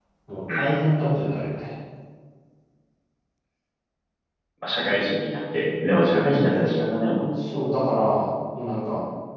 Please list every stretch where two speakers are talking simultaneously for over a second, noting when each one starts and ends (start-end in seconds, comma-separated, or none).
none